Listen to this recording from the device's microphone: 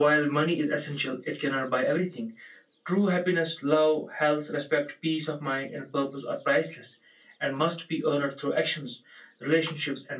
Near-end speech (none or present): none